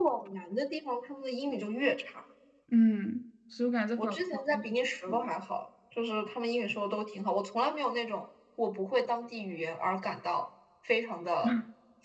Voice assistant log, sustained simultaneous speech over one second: present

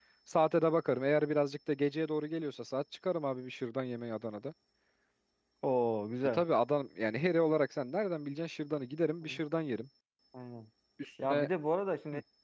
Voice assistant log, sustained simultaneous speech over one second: none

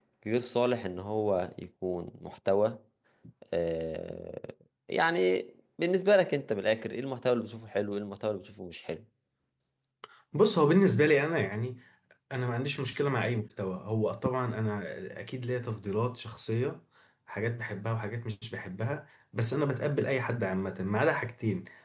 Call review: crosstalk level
none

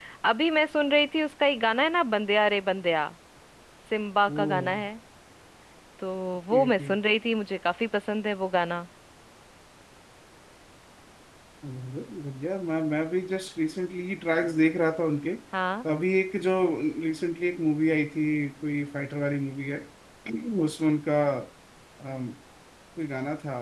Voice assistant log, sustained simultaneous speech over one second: none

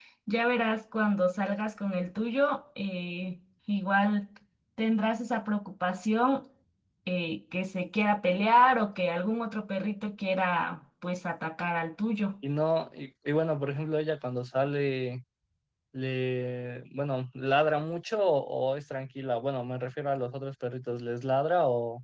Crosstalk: none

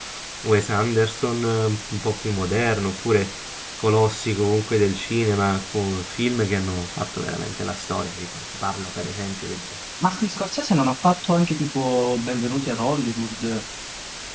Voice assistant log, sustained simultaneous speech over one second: none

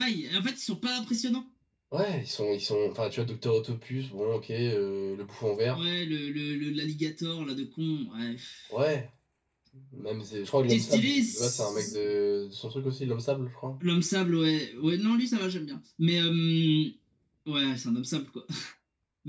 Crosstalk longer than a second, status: present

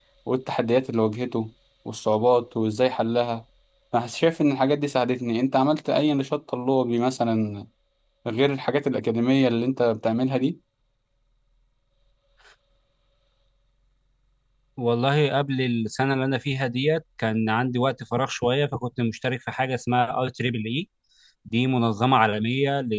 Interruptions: none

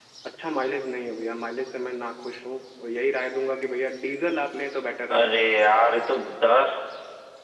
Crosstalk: none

